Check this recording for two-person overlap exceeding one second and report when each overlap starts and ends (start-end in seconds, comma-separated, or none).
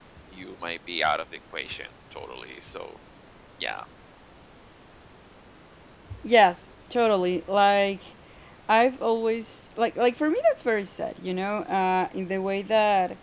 none